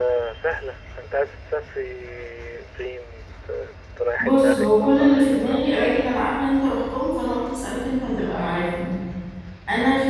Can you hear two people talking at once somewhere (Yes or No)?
Yes